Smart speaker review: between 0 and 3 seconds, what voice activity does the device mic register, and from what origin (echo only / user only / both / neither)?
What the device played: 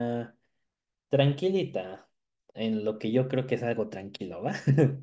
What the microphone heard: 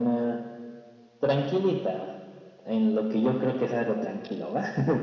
echo only